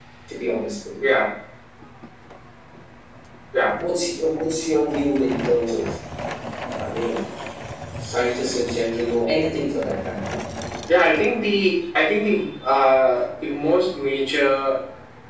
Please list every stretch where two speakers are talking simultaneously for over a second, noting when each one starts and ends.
none

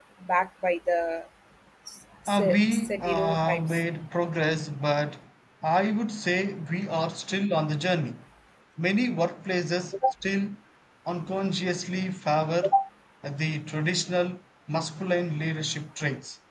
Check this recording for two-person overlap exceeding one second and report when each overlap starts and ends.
2.3-3.8

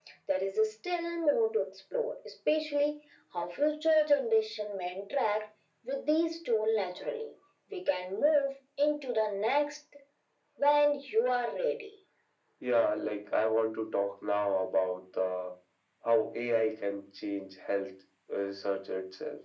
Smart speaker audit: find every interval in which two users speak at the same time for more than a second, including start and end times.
none

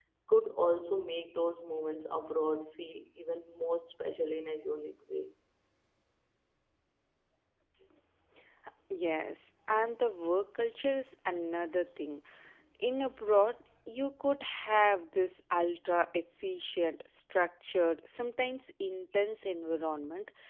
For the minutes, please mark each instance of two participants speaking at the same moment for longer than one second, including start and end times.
none

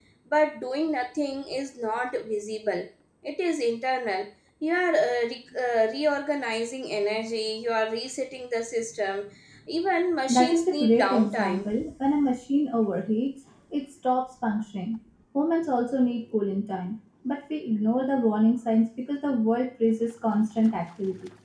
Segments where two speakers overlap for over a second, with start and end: 10.3-11.7

